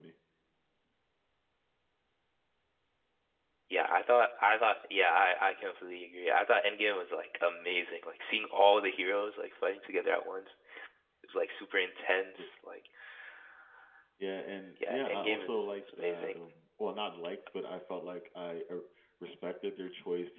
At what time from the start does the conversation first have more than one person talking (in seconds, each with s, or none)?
14.9 s